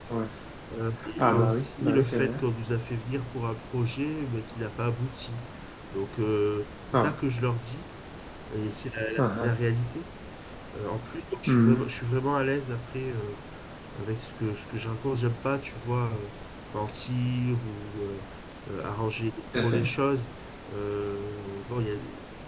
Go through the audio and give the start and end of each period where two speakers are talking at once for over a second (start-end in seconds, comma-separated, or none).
1.2-2.4